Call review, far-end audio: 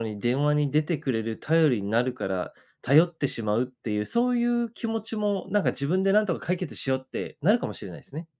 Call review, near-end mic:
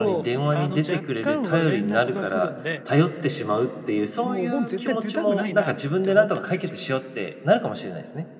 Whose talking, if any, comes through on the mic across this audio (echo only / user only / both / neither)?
both